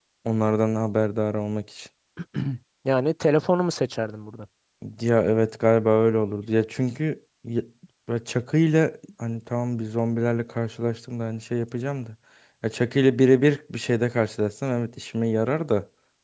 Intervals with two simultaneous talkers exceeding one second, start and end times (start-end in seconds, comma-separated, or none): none